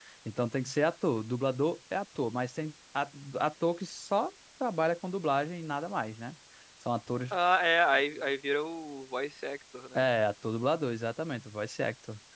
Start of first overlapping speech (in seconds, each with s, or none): none